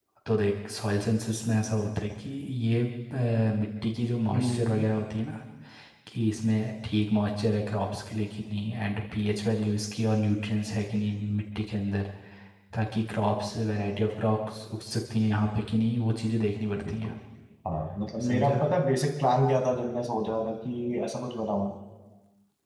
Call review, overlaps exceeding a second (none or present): none